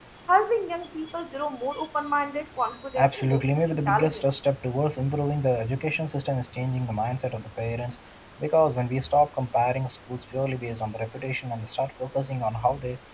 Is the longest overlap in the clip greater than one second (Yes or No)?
Yes